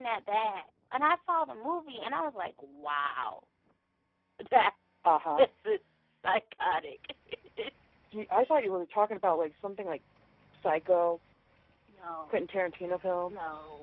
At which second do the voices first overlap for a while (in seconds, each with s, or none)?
none